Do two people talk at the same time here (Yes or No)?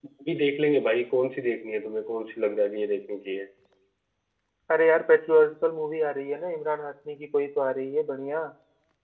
No